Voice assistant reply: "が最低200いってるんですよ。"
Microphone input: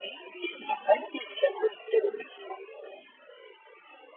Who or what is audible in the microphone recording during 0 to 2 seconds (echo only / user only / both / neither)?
echo only